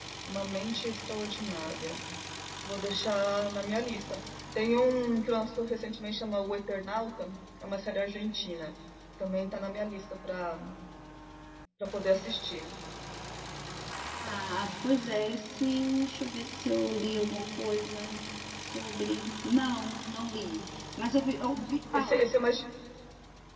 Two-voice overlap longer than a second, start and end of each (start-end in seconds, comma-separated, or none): none